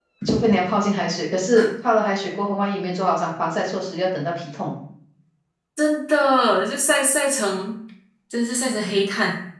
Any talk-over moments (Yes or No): No